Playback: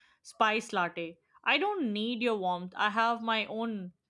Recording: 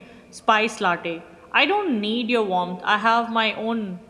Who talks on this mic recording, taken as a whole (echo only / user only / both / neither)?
echo only